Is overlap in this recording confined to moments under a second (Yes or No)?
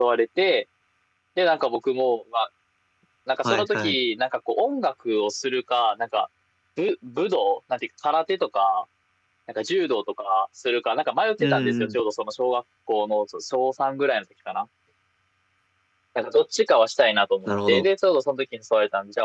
Yes